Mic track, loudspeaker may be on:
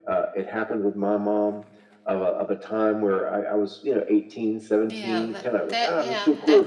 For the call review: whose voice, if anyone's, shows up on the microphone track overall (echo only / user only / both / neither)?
both